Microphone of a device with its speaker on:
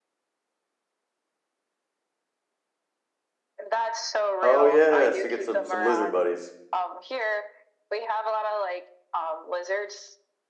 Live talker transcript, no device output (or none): Oh yes, you get some some lizard buddies.